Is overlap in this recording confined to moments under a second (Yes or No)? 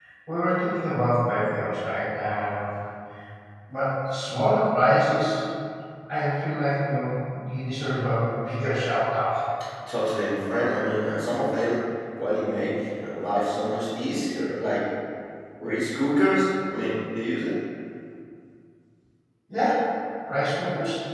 Yes